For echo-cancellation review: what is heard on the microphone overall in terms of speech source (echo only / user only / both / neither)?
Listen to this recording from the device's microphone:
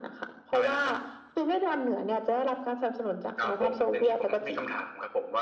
echo only